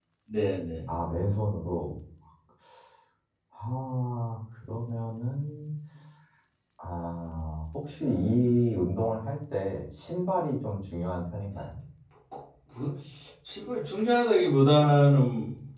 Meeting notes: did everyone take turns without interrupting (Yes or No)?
Yes